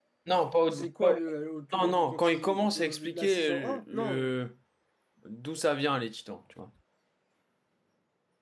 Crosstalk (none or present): present